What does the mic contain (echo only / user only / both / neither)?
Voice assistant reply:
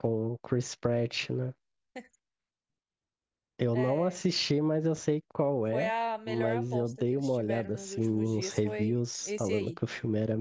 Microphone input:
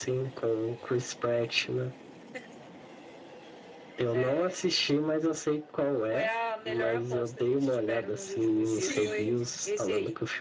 both